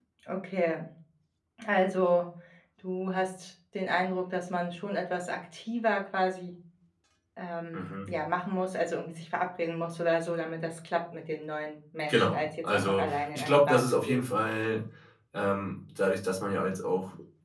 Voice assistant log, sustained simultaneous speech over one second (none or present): present